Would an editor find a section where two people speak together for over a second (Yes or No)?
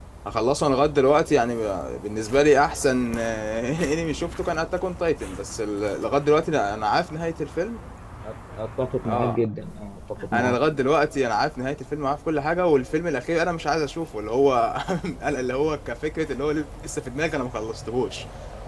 No